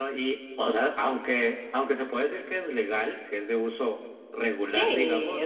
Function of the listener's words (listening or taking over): taking over